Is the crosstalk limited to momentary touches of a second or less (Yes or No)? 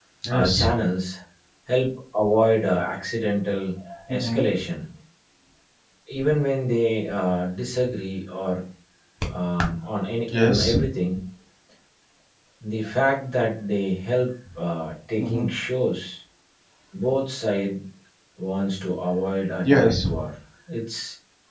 Yes